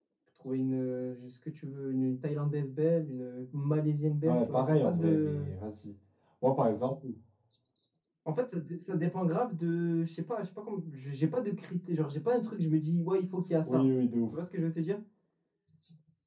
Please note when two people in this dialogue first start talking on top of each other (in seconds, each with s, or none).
4.2 s